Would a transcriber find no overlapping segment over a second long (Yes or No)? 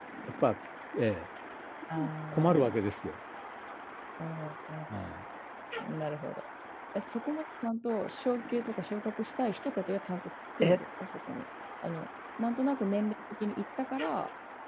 Yes